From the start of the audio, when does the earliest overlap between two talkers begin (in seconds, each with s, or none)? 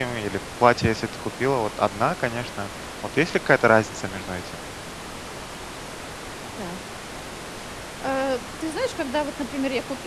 none